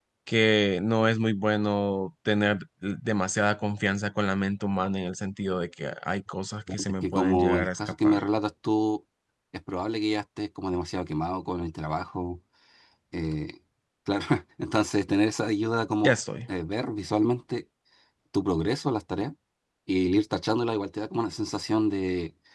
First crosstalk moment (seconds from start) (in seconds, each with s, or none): 6.9 s